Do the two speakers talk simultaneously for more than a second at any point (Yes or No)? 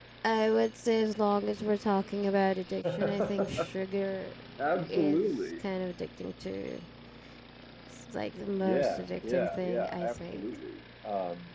Yes